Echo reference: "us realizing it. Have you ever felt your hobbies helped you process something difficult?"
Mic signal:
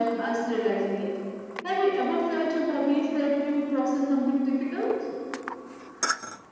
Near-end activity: none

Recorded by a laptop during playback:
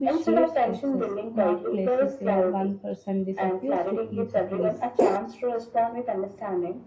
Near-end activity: present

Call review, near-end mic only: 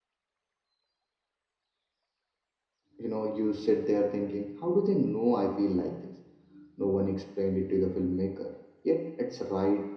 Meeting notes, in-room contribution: present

